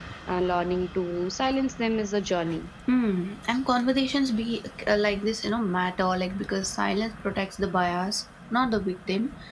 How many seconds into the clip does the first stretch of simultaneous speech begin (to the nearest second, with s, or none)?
none